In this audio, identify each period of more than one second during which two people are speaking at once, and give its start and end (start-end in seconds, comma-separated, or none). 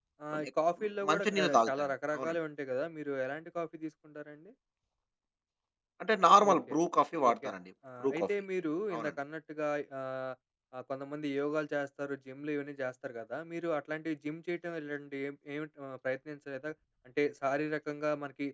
1.1-2.4